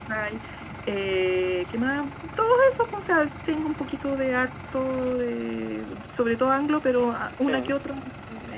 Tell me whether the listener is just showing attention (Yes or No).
Yes